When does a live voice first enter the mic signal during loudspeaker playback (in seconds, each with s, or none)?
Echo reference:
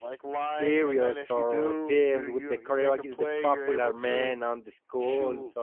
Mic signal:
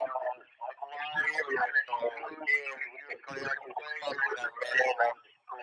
none